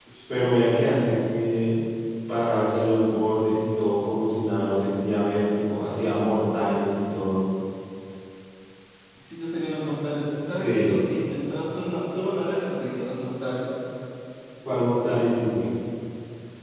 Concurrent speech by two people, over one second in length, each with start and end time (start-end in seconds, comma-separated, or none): none